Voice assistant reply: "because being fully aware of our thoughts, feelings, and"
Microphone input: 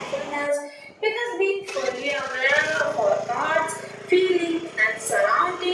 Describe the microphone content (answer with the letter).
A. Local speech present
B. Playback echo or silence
B